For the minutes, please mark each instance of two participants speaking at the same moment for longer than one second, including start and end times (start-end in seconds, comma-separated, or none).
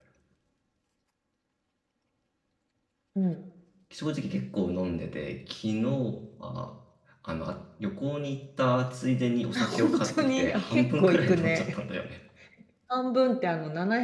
9.6-11.7